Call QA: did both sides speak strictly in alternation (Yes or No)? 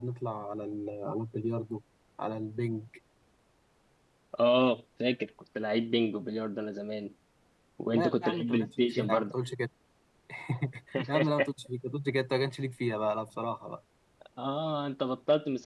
No